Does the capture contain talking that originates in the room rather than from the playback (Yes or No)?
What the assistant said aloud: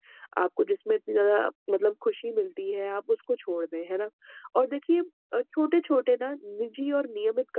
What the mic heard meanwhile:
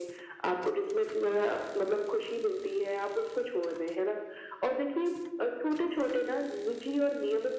No